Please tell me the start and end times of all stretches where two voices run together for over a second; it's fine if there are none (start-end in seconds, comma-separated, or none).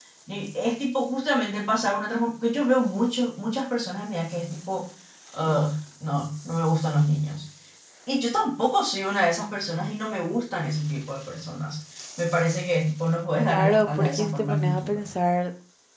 13.5-15.0